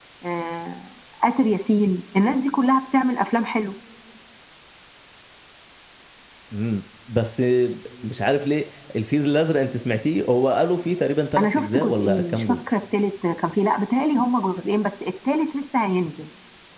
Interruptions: present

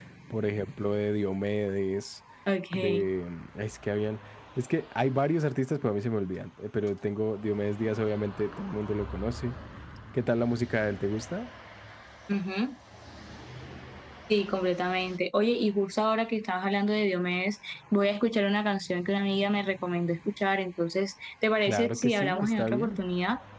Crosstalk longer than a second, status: present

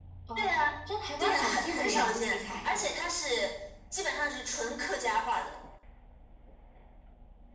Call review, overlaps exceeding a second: present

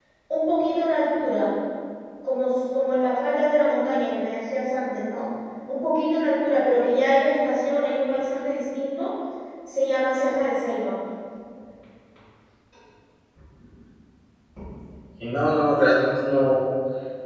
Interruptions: none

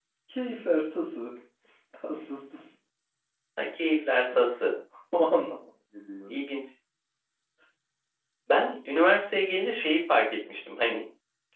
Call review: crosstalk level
none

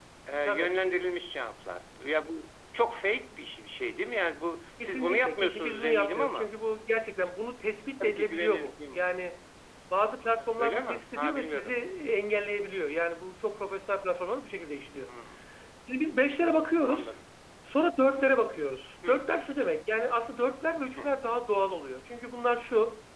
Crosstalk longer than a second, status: present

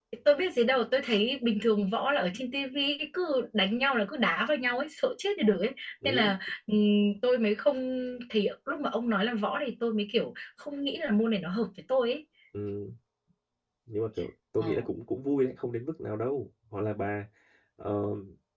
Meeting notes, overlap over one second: none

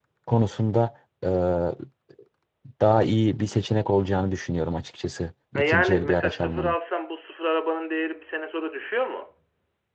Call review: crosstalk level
present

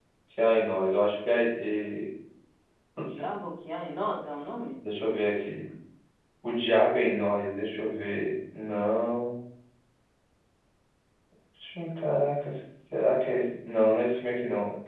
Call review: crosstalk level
none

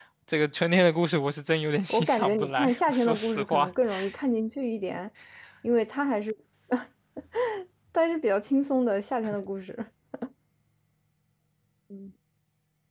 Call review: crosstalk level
present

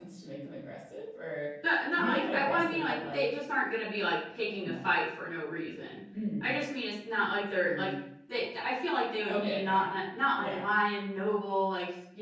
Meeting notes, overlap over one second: present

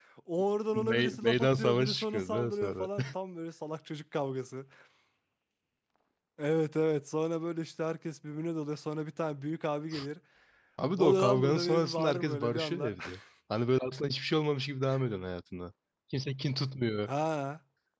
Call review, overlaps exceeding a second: present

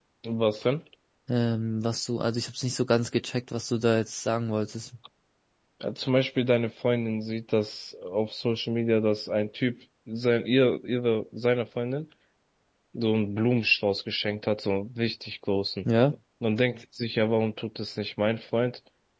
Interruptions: none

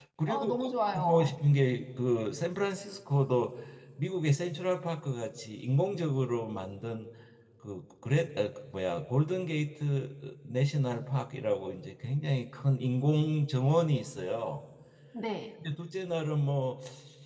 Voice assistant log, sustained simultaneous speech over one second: none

